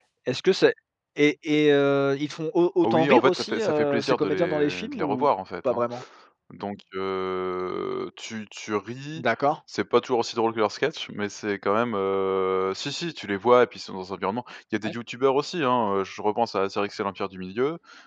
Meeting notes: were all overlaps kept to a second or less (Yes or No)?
No